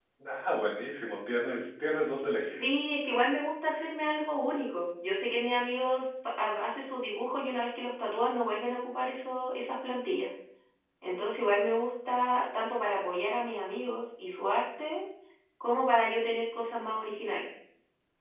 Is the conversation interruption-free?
Yes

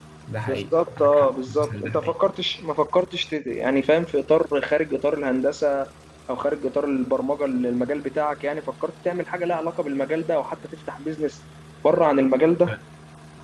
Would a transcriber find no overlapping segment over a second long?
No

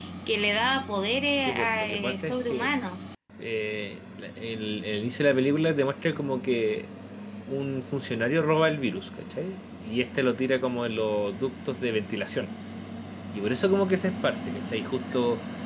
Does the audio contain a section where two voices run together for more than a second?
Yes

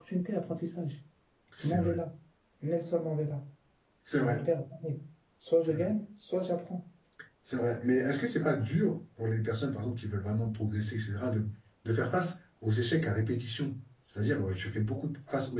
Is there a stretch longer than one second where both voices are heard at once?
No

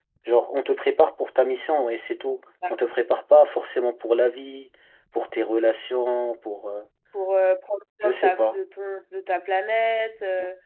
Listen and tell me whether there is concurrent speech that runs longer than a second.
No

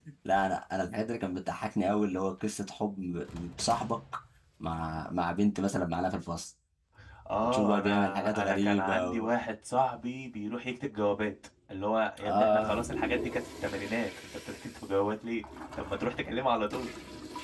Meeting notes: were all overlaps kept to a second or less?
No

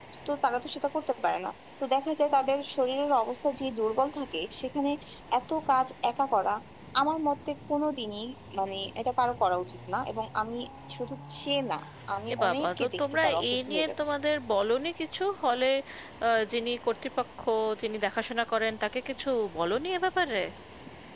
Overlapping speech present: Yes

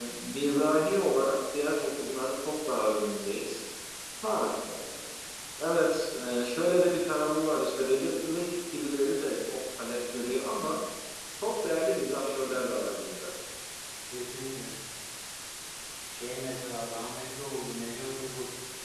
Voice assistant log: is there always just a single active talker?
Yes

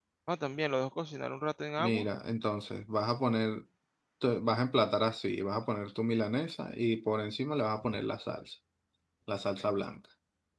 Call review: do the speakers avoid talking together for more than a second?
Yes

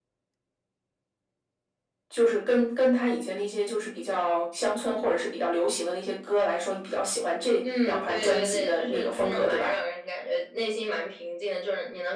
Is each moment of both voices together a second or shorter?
No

